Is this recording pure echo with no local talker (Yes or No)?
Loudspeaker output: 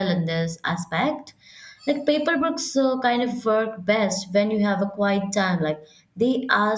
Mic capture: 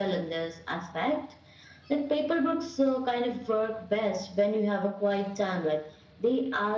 Yes